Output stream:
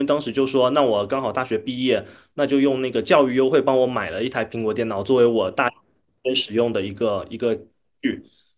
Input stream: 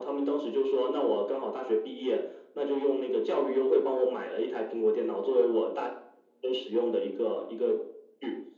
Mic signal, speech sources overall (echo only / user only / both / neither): echo only